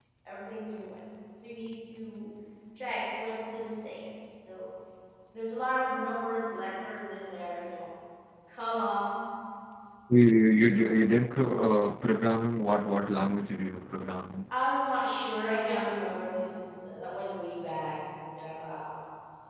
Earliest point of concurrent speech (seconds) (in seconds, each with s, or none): none